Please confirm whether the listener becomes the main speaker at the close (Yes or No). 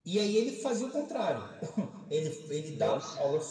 No